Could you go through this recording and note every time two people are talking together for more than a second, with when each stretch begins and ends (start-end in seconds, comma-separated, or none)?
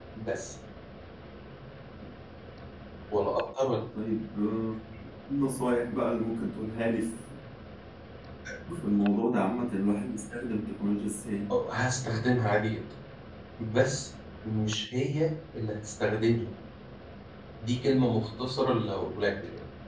none